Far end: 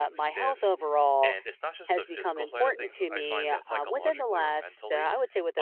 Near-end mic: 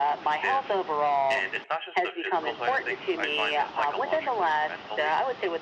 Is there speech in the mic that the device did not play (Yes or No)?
No